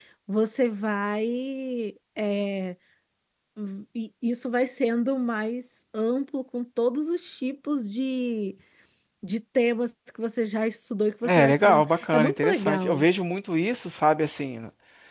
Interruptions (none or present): present